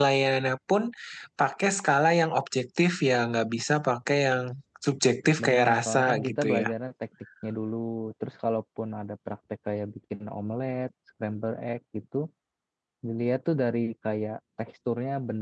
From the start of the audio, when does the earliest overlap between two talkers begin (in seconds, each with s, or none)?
5.4 s